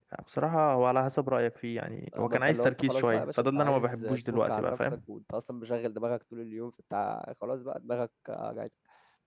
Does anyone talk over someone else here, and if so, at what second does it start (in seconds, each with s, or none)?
2.1 s